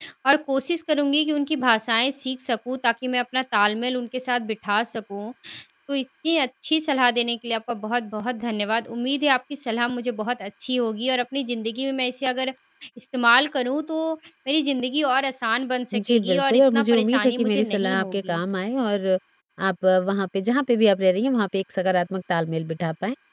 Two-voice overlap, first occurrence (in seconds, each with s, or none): 15.9 s